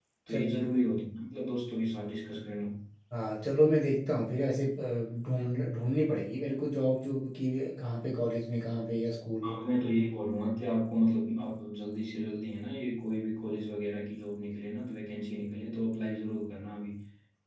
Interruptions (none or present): none